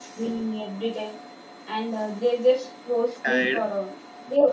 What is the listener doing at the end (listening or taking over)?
listening